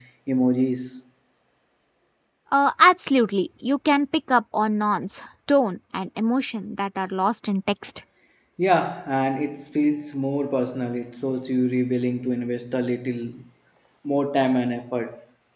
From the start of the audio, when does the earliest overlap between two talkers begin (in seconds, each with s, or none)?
none